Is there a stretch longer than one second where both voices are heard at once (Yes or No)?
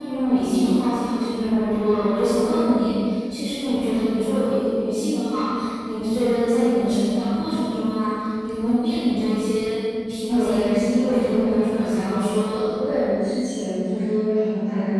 Yes